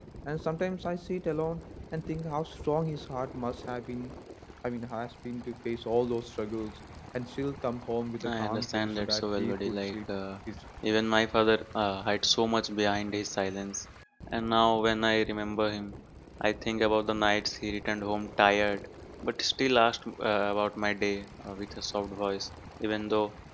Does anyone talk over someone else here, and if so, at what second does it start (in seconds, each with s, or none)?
8.2 s